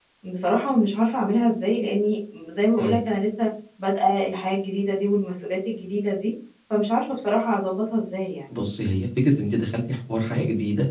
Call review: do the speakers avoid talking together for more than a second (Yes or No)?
Yes